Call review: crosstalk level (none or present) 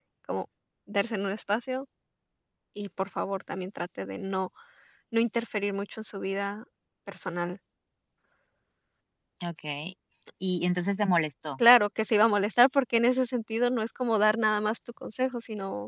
none